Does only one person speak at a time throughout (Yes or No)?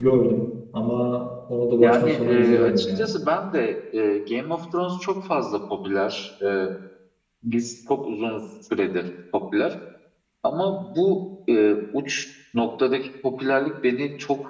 No